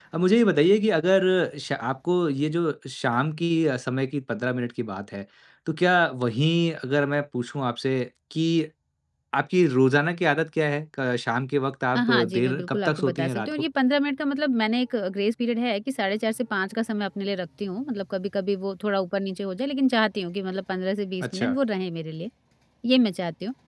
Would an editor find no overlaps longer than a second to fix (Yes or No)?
No